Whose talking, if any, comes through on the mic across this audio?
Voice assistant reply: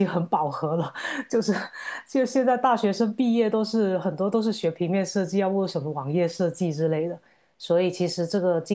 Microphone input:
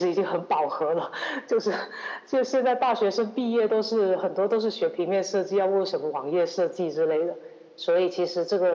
echo only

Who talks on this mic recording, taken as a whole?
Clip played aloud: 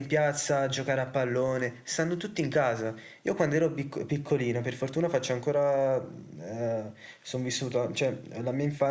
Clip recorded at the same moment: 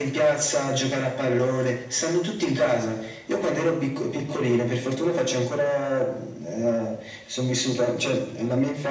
echo only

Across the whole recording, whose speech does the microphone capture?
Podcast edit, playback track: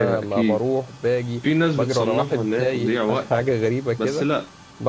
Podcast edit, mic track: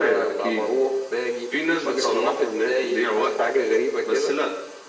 echo only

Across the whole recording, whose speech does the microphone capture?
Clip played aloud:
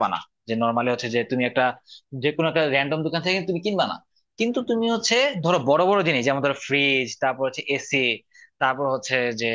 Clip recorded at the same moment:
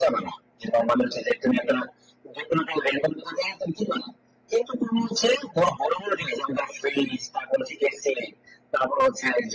echo only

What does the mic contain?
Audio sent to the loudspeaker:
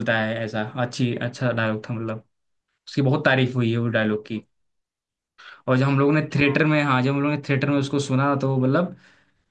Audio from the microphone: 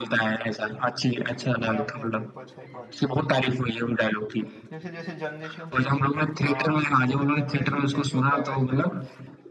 both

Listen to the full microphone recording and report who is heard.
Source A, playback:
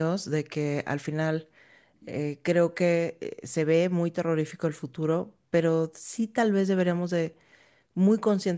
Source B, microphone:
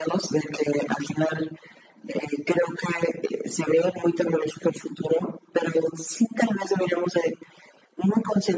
echo only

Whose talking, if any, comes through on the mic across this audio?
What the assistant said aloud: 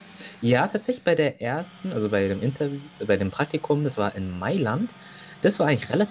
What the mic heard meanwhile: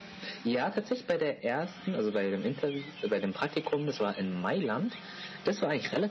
echo only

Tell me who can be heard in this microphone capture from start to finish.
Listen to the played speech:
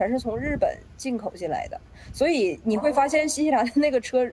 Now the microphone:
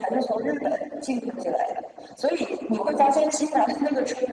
echo only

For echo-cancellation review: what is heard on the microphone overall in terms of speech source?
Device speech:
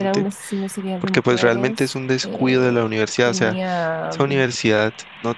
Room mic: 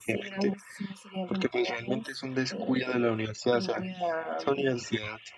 echo only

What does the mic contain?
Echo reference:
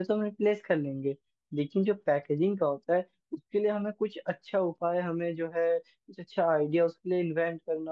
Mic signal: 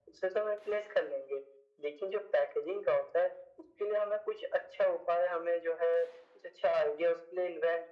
echo only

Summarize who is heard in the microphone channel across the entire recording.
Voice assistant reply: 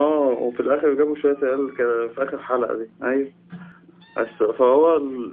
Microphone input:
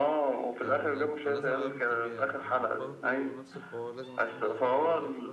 both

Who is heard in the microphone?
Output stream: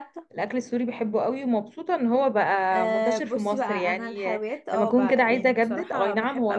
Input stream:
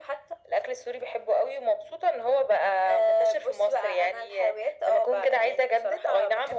echo only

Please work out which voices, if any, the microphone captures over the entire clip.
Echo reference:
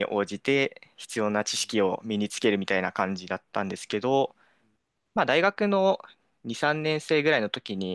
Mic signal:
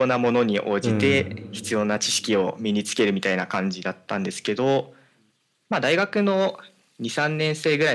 both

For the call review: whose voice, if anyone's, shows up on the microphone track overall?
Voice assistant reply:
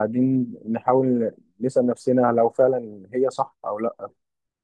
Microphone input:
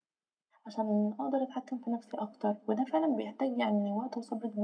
user only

